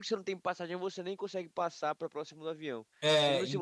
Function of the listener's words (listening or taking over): listening